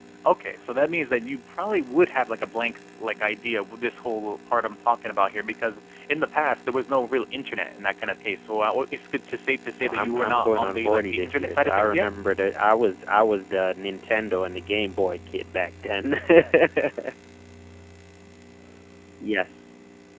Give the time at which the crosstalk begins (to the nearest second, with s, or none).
10 s